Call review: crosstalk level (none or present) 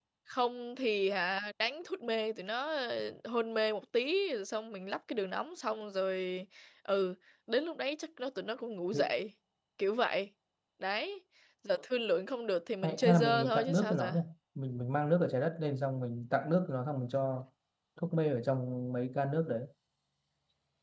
present